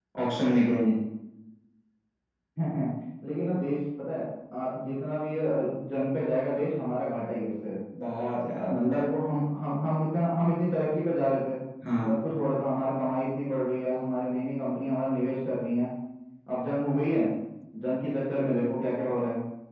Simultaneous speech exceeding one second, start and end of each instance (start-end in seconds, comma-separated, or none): none